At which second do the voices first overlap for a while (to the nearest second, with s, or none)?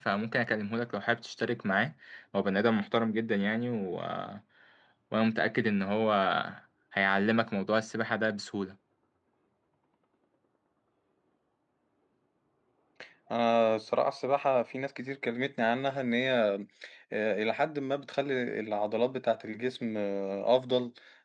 none